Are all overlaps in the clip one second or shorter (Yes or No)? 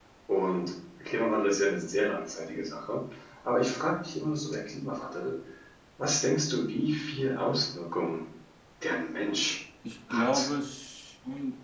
Yes